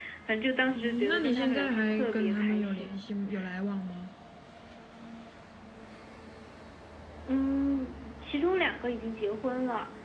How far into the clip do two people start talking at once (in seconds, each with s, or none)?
0.8 s